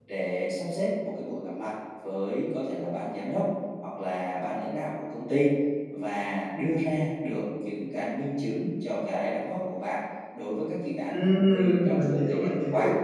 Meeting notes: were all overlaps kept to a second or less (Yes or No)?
No